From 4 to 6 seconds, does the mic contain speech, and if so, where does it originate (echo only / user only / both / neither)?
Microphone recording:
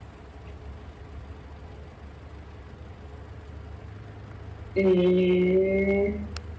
user only